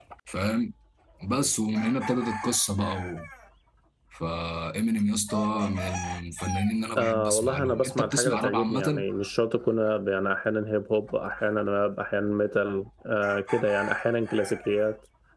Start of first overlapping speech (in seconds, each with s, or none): 7.0 s